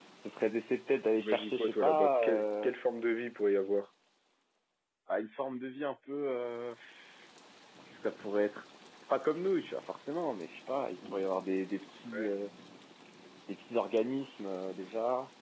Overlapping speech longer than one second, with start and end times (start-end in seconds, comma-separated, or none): 1.2-2.7